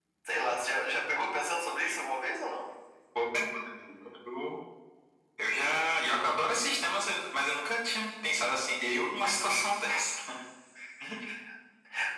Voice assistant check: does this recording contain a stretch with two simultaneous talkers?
No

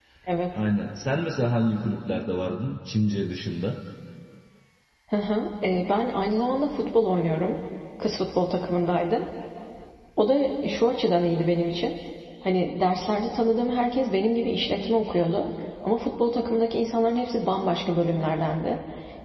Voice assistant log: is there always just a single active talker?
Yes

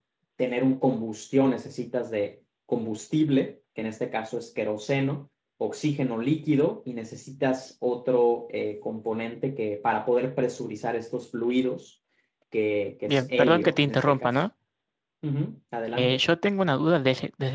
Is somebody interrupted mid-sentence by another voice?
Yes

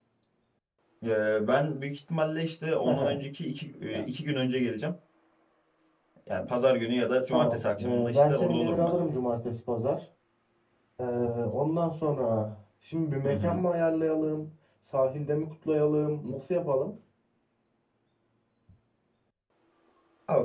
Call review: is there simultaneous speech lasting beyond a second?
Yes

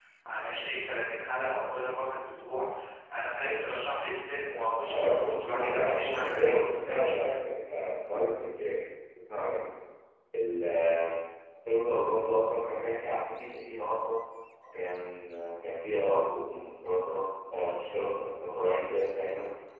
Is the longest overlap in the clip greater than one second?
Yes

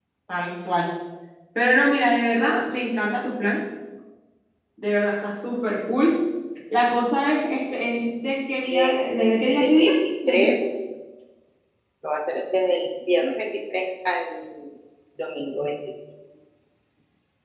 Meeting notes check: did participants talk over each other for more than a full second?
Yes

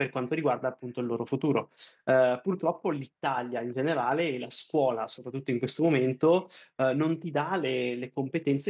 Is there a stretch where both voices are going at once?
No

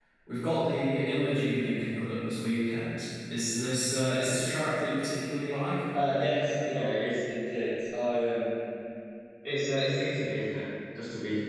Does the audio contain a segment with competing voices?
No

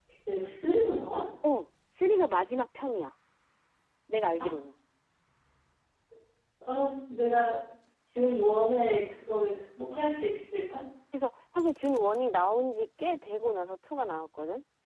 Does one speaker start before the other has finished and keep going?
No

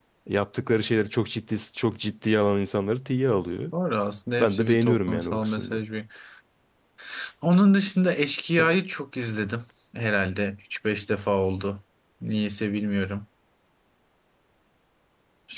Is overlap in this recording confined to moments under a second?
No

